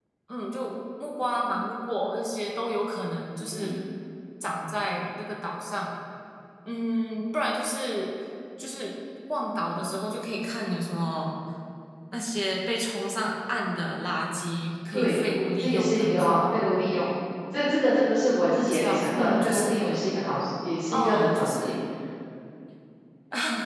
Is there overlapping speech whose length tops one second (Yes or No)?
Yes